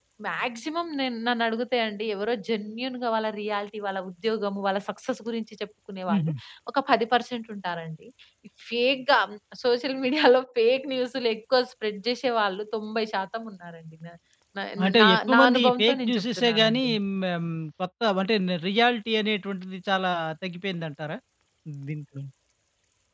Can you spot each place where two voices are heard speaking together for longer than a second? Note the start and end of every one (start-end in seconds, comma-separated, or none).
15.0-16.8